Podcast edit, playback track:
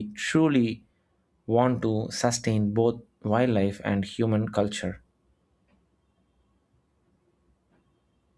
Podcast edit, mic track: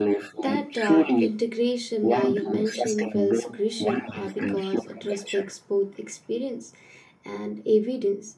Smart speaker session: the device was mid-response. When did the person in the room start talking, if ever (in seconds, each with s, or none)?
0.4 s